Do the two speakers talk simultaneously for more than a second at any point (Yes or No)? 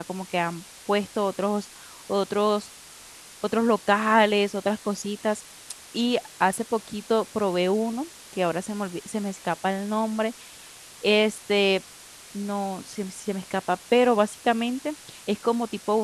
No